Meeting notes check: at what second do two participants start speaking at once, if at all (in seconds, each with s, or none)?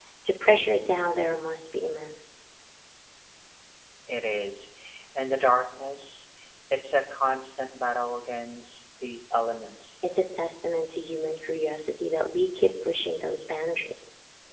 none